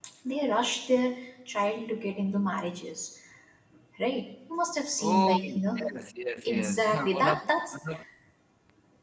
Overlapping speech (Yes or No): Yes